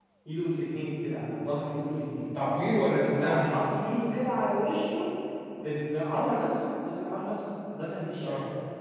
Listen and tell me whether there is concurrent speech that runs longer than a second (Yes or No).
No